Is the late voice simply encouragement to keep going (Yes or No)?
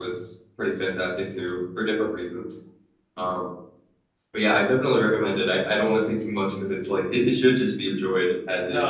No